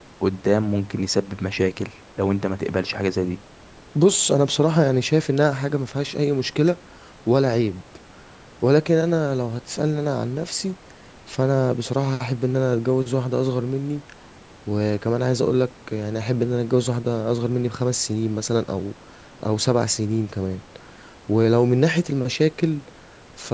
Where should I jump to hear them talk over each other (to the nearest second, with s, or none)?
none